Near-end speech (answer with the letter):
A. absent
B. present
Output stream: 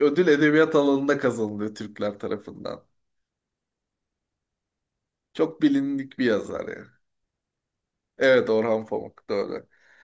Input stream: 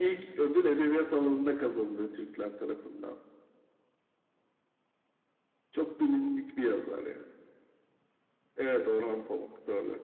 A